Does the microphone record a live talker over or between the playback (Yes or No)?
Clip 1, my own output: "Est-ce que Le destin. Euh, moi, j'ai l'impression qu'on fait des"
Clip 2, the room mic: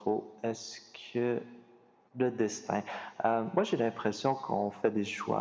No